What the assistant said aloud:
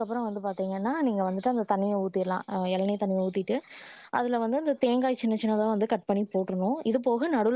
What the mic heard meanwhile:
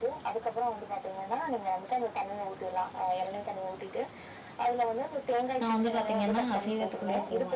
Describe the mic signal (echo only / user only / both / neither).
both